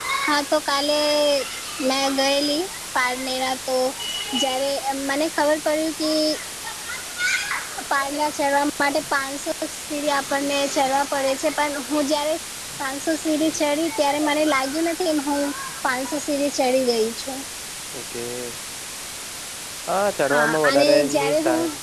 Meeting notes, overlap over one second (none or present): present